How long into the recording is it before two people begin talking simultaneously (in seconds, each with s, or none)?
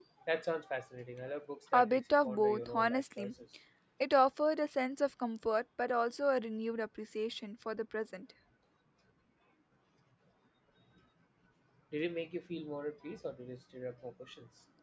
1.7 s